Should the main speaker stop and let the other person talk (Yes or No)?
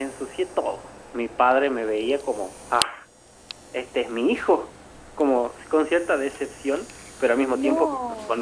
No